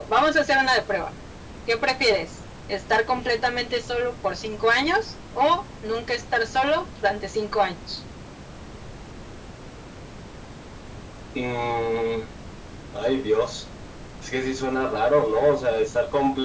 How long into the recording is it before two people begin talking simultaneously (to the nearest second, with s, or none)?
none